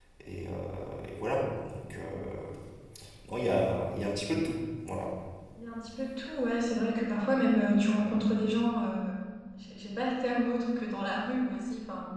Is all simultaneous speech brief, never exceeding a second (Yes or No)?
Yes